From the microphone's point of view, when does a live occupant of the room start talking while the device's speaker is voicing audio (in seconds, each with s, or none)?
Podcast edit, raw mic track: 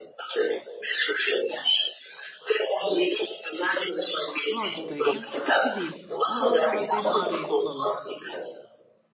4.5 s